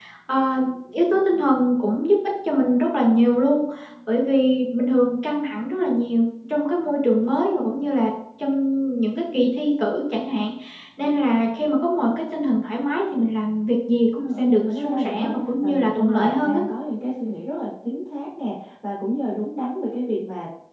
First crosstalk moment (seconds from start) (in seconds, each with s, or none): 14.2 s